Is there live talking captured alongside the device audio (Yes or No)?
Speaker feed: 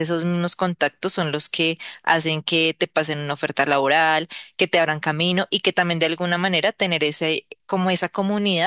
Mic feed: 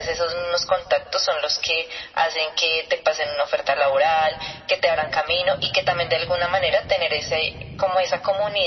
No